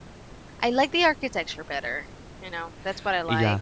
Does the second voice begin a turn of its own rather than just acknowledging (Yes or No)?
Yes